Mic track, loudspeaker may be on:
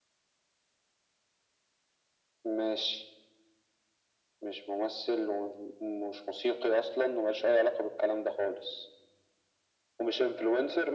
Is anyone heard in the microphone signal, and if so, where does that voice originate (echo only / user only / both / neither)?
echo only